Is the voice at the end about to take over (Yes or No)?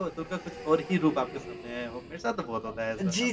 Yes